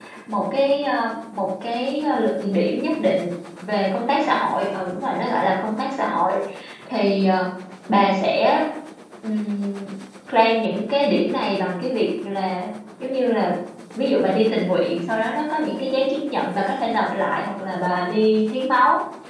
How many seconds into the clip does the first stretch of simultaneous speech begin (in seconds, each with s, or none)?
none